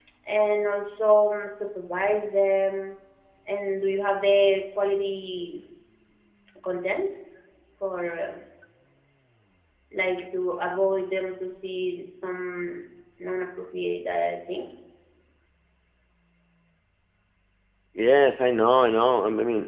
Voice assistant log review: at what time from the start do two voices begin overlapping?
none

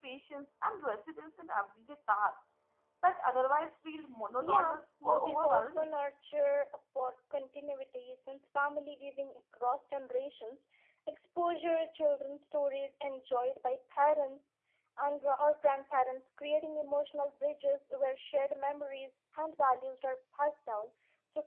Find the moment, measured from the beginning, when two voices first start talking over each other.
4.4 s

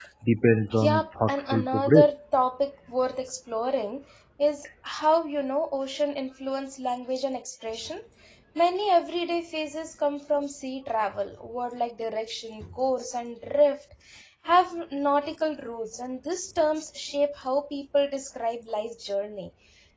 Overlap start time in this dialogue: 0.8 s

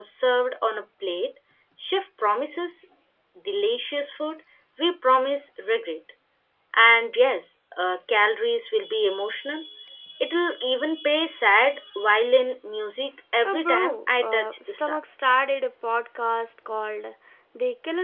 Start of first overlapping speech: 13.4 s

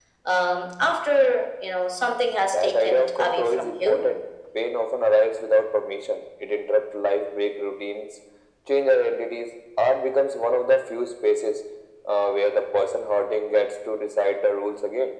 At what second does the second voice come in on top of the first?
2.2 s

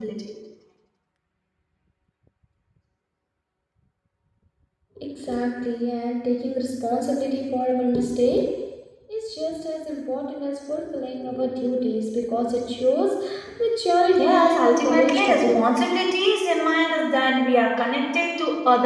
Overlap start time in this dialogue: 14.2 s

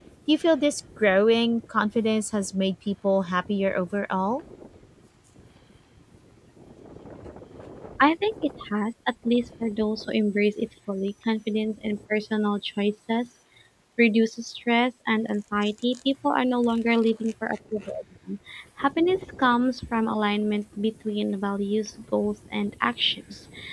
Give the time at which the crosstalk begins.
none

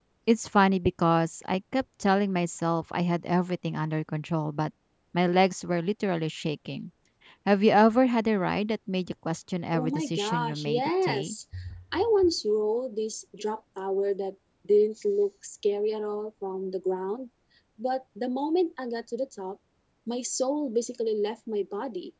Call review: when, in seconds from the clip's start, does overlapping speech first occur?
9.7 s

